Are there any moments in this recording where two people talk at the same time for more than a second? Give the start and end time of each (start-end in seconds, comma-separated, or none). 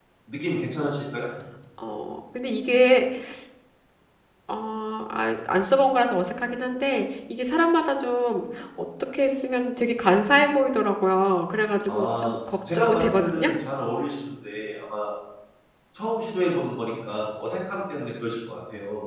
11.9-13.5